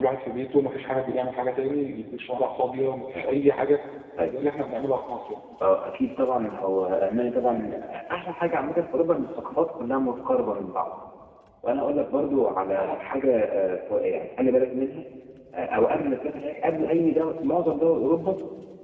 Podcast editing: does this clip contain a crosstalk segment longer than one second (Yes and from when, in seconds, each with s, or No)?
No